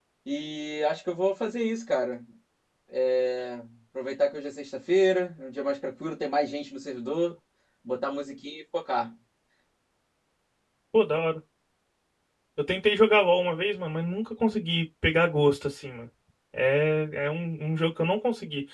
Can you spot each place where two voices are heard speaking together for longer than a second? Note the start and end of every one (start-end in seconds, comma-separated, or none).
none